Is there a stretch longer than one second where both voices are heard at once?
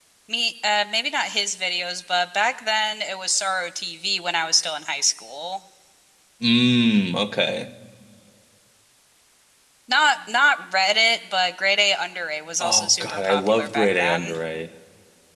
Yes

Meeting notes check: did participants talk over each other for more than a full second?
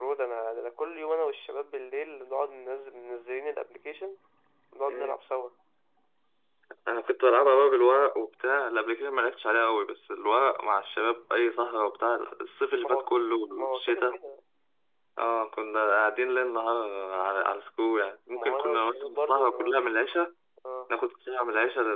Yes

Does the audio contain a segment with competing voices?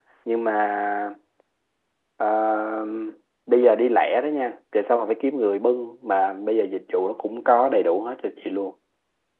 No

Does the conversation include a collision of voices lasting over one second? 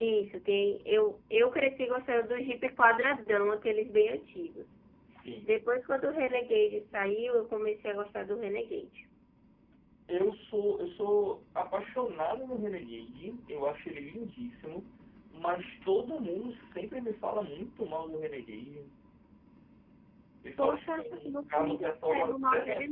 Yes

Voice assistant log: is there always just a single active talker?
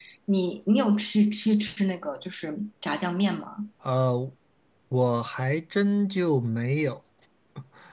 Yes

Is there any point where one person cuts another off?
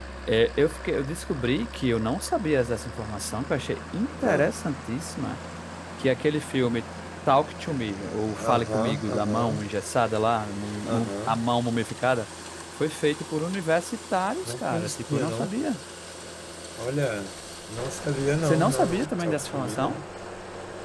Yes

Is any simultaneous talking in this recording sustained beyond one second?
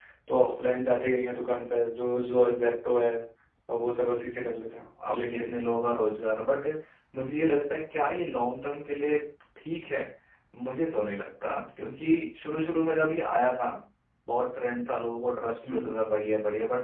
No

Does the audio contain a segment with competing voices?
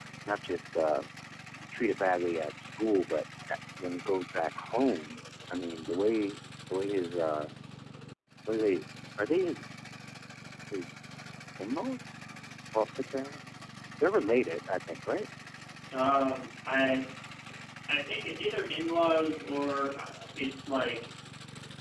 No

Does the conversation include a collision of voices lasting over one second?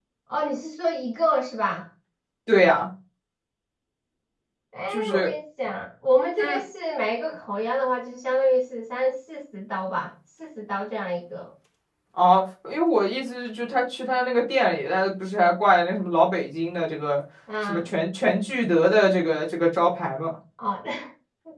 No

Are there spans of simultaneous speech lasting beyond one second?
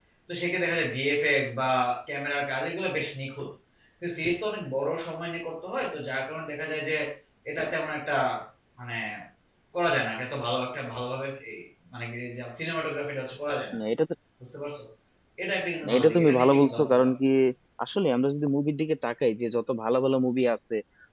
Yes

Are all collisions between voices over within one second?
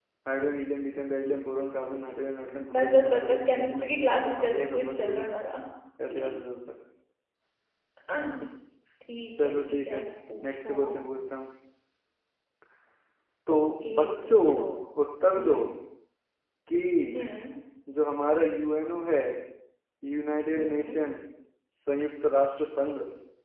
No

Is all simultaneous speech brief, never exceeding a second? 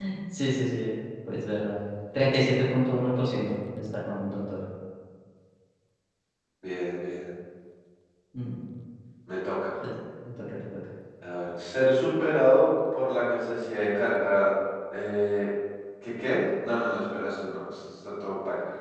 Yes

